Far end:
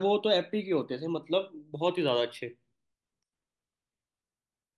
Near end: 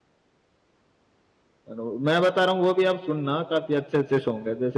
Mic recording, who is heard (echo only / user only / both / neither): user only